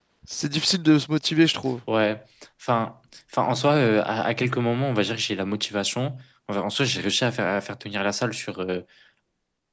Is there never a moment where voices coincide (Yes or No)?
Yes